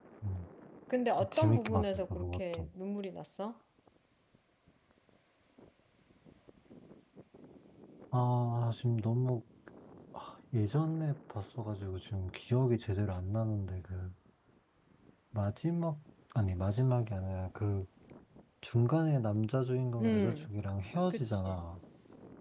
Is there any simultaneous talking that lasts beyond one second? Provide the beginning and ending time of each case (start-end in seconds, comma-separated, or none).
1.3-2.7